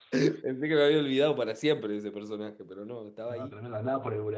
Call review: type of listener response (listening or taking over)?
taking over